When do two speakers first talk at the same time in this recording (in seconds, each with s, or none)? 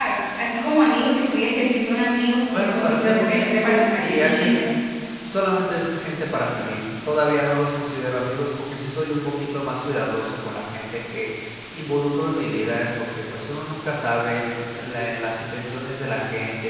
2.5 s